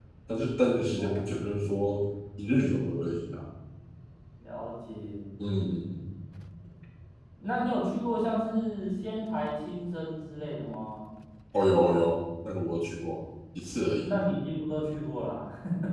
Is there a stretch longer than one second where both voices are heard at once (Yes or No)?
No